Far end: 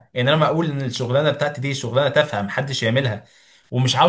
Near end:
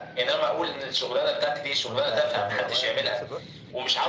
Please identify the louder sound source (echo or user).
echo